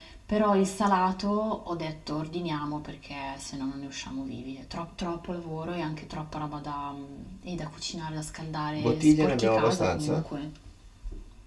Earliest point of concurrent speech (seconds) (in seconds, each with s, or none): 8.8 s